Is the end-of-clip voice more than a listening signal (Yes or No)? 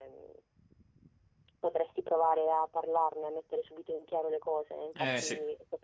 No